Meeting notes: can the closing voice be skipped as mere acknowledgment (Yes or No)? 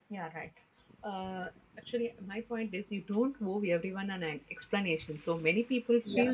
Yes